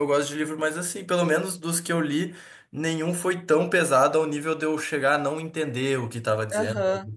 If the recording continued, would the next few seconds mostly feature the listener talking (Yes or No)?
Yes